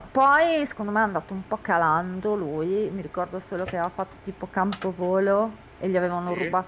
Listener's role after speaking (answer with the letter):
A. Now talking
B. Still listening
B